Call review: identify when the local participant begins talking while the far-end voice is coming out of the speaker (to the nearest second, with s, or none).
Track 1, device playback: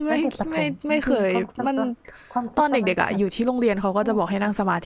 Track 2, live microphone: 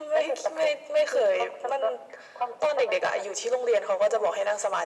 none